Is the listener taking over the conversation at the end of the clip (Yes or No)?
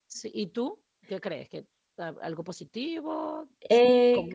Yes